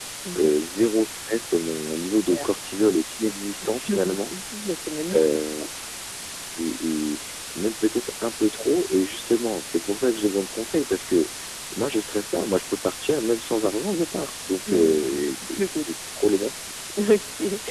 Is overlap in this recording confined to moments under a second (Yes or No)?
No